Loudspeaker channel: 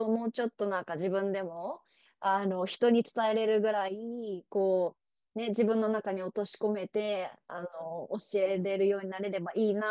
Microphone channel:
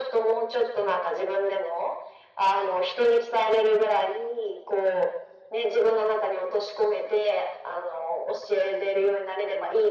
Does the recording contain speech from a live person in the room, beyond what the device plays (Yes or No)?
No